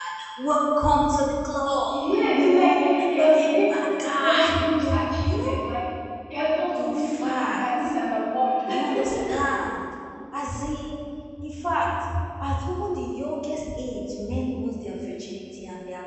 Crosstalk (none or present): present